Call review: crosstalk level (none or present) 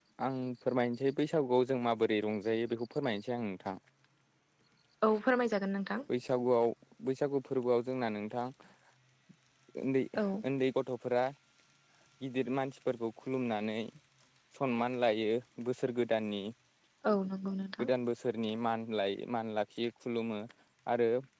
none